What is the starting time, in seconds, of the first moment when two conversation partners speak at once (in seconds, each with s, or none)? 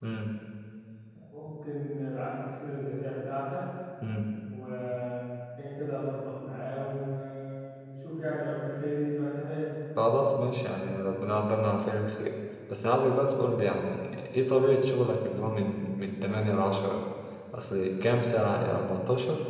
none